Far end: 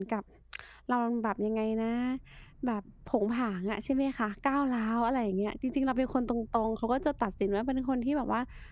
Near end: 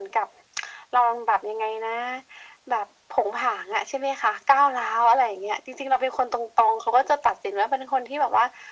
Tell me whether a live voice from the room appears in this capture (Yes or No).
No